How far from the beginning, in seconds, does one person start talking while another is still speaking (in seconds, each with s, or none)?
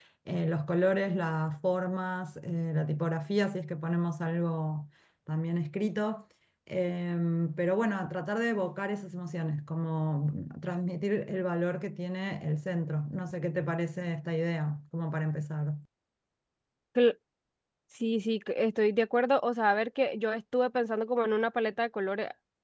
none